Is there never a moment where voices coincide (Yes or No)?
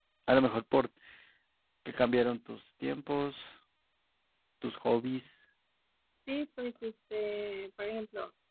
Yes